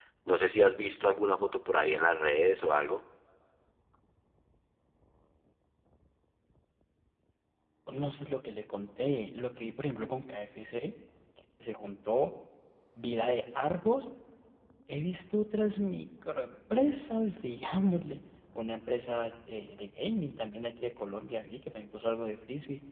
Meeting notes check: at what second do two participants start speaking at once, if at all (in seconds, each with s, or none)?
none